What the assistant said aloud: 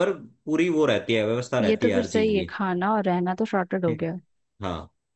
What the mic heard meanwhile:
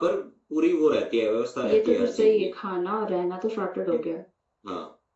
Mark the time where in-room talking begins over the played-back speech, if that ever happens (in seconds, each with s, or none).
none